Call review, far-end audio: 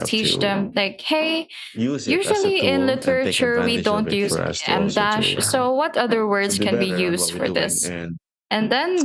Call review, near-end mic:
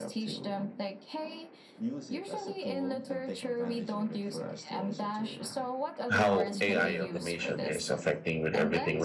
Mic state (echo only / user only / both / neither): both